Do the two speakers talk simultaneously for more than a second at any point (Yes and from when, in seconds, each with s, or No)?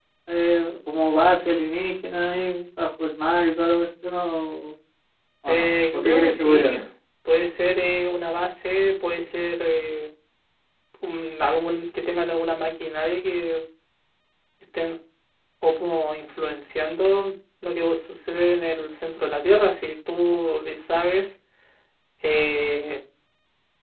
Yes, from 5.5 s